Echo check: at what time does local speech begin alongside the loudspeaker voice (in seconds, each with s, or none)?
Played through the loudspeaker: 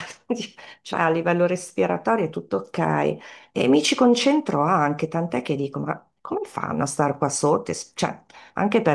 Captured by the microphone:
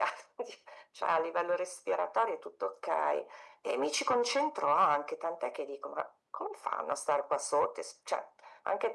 none